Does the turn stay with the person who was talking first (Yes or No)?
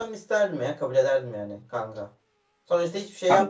Yes